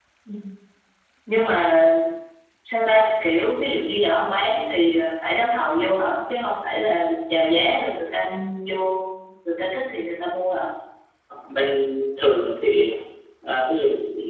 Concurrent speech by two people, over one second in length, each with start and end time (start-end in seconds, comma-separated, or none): none